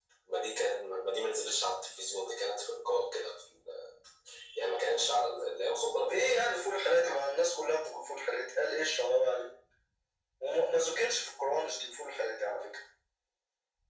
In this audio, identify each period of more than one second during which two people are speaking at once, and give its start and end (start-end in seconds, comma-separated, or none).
6.0-7.2